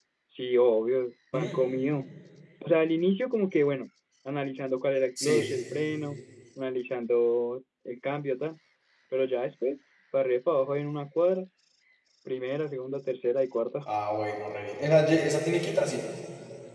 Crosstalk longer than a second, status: none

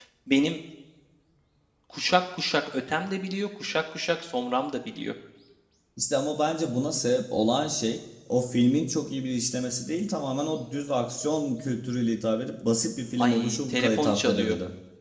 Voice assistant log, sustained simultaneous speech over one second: present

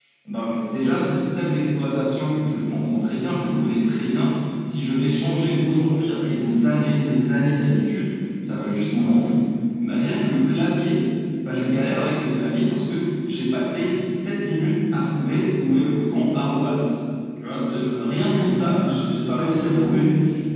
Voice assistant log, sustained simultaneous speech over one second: present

